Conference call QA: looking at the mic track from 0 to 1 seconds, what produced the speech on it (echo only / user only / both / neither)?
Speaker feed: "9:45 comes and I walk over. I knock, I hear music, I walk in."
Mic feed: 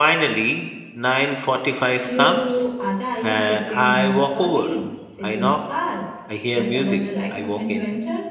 echo only